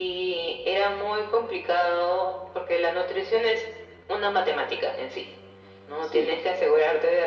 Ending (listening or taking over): listening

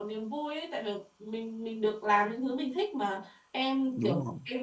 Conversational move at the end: listening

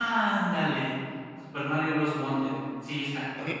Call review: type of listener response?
taking over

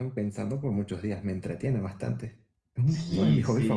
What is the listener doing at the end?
taking over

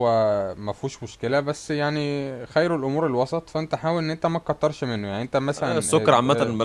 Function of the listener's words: taking over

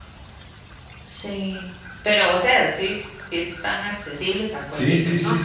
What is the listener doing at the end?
taking over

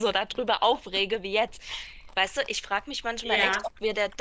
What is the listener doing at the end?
listening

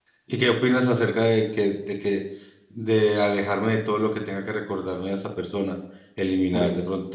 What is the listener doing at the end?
listening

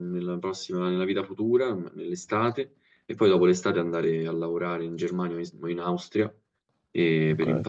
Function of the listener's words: listening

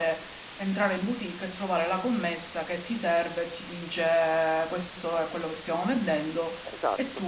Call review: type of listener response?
taking over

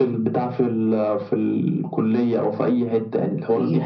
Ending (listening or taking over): taking over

